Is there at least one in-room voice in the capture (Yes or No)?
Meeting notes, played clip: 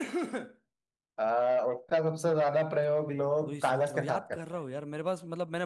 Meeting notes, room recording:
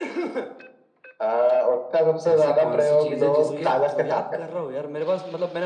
Yes